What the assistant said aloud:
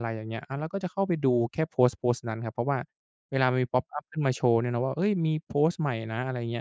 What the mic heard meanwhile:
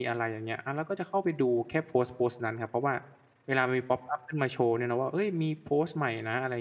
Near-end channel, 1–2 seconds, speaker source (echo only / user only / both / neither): echo only